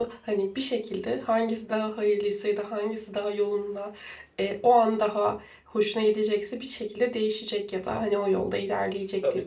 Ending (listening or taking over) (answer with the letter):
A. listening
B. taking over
B